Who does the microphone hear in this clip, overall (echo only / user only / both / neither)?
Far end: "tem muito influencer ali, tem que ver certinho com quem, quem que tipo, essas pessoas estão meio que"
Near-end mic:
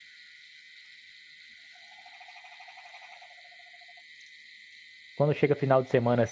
user only